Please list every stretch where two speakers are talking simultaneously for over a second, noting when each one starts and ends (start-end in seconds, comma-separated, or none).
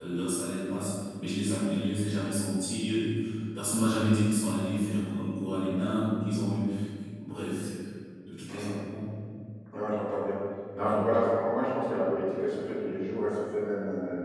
none